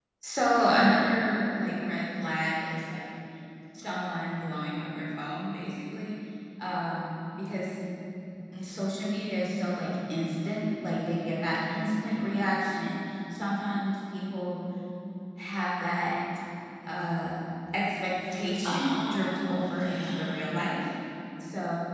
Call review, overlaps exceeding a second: present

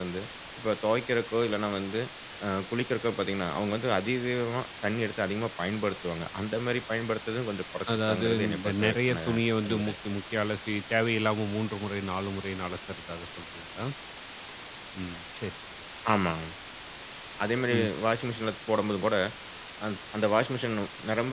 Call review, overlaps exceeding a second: present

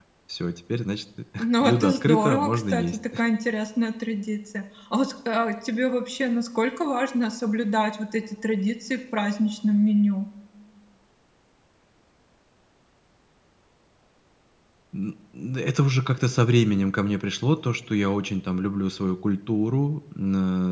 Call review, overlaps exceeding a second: present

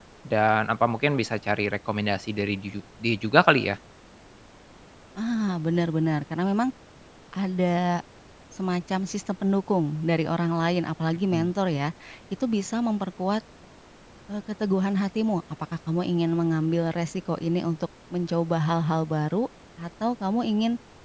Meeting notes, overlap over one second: none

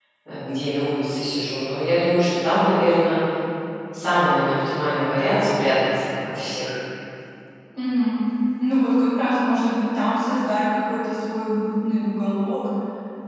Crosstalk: none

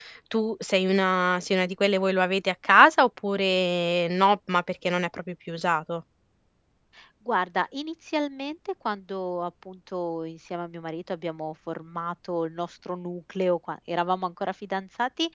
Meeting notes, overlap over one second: none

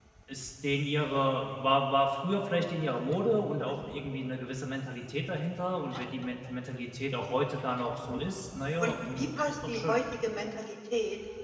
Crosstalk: present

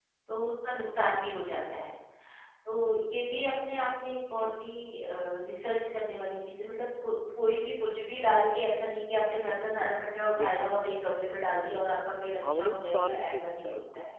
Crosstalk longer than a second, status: present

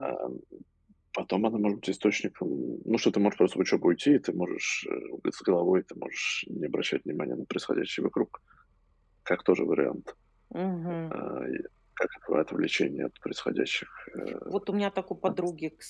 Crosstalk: none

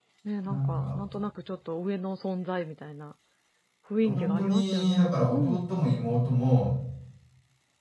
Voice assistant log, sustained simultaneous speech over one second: present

